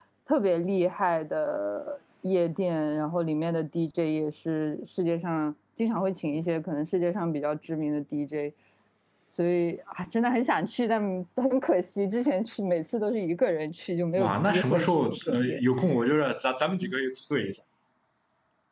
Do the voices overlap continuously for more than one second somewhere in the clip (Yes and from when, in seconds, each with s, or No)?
Yes, from 14.2 s